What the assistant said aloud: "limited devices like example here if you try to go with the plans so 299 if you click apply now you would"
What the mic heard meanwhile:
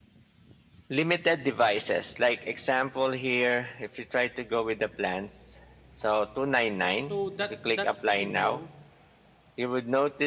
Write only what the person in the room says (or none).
So that that's pretty new.